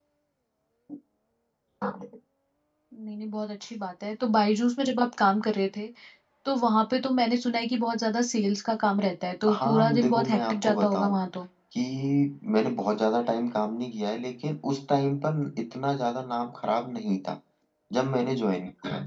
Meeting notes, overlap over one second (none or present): present